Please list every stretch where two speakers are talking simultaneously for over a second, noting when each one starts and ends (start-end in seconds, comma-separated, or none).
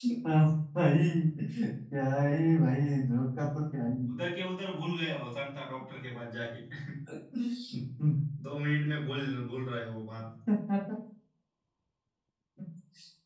none